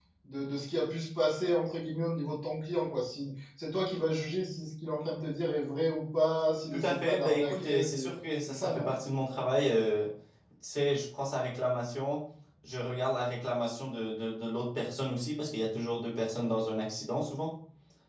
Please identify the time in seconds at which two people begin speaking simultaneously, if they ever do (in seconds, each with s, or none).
6.7 s